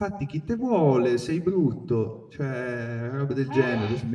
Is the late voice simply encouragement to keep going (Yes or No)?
Yes